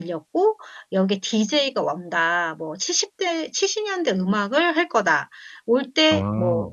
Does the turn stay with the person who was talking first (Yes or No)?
Yes